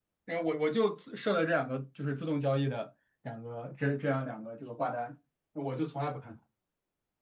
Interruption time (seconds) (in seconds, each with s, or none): none